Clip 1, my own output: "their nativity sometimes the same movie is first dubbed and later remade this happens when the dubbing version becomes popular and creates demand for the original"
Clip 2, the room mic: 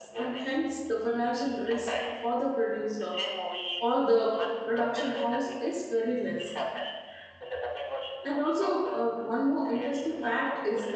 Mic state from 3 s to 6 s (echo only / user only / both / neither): both